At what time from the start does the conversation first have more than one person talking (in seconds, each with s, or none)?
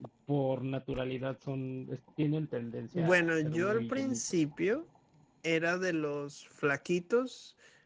2.9 s